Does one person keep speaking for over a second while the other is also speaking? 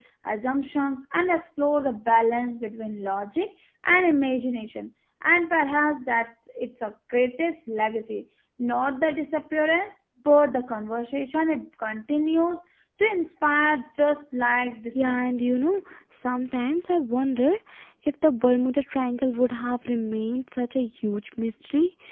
No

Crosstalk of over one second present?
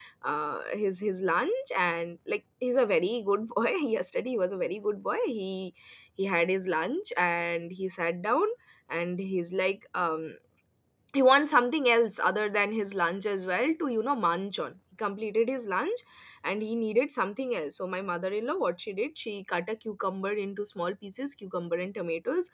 No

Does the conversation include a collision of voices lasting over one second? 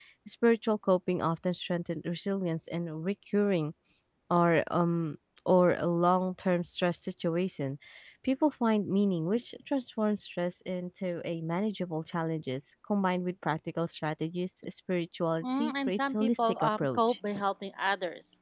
Yes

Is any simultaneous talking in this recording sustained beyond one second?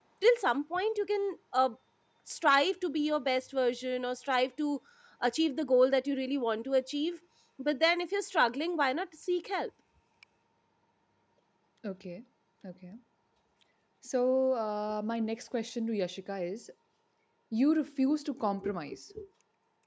No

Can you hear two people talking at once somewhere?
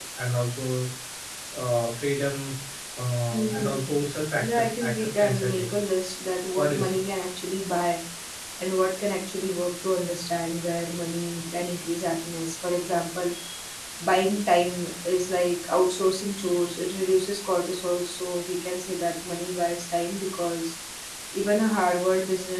Yes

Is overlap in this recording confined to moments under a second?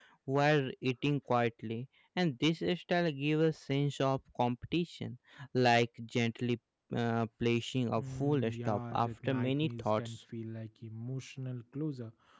No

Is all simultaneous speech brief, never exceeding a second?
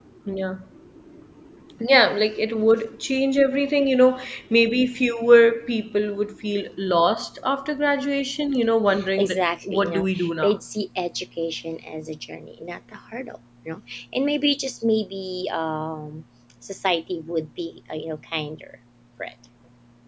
No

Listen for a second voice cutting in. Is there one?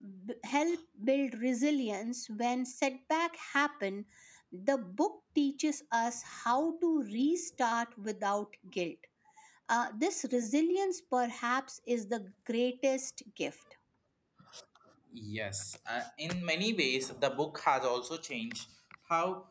No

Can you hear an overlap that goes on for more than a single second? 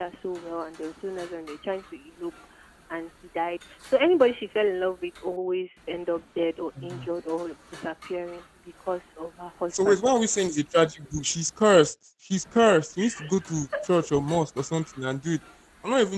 No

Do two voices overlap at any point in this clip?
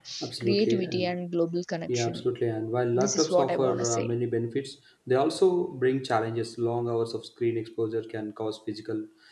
Yes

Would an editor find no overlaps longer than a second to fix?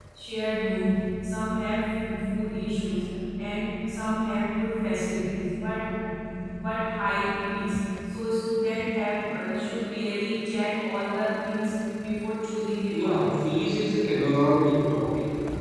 Yes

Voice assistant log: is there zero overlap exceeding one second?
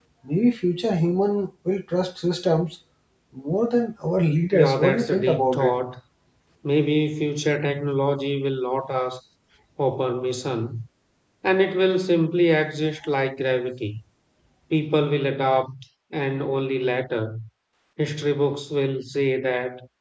No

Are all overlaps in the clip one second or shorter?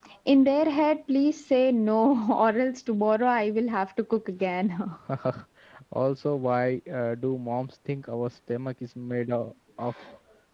Yes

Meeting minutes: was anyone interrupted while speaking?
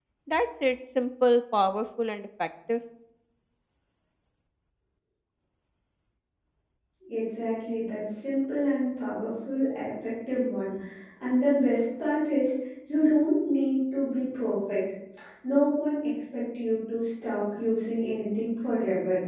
No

